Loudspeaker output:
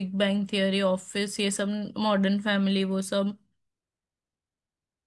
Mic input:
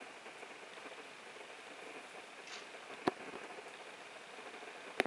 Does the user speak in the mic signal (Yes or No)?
No